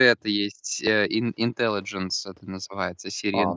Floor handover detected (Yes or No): Yes